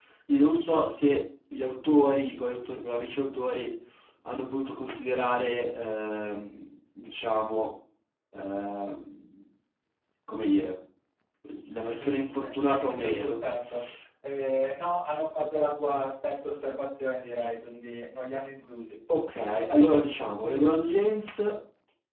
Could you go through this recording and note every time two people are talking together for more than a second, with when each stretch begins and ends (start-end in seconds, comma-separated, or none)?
11.9-13.3